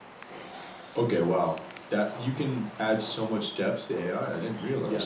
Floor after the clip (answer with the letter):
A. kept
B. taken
B